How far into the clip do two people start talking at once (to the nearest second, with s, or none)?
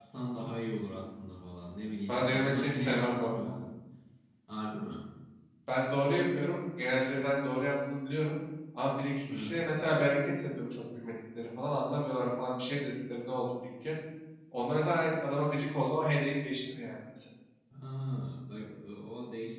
2 s